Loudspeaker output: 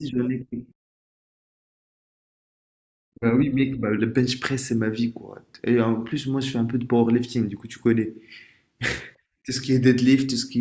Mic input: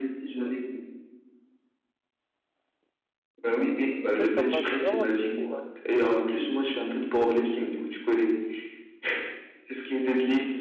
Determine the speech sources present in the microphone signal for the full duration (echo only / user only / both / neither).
both